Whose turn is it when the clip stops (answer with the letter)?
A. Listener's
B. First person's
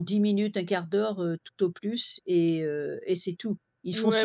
A